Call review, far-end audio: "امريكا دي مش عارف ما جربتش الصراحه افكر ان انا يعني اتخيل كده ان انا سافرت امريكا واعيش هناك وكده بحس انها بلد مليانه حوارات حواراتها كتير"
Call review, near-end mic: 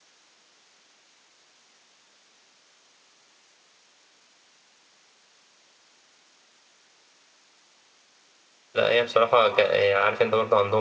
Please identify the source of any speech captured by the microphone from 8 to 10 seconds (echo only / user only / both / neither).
user only